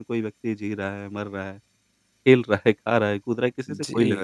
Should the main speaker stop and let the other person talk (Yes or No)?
Yes